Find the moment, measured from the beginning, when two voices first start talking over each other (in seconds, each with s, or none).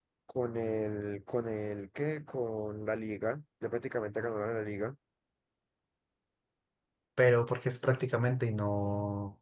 none